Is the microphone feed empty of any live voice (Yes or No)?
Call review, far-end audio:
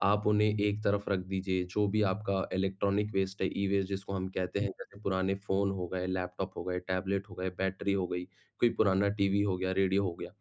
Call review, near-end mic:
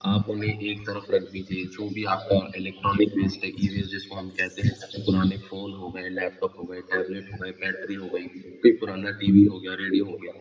Yes